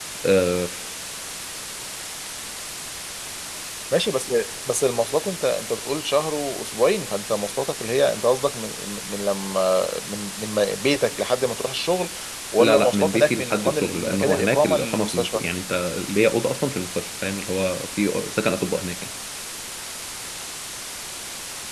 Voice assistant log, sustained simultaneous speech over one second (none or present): present